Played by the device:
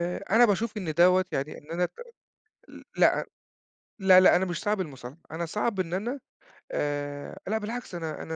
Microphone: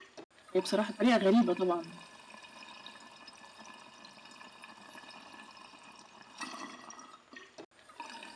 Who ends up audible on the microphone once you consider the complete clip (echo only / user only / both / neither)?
user only